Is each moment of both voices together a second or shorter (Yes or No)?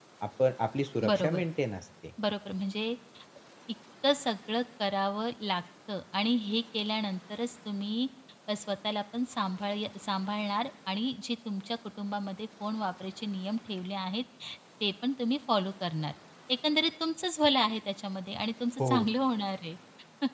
Yes